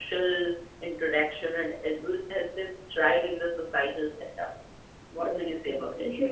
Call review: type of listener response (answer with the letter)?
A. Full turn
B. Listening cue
A